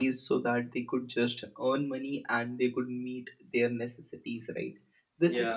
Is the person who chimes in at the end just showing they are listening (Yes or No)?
Yes